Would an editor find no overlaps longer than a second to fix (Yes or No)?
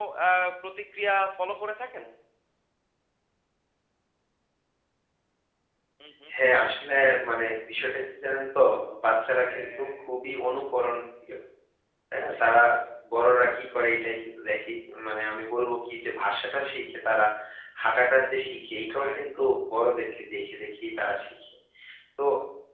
Yes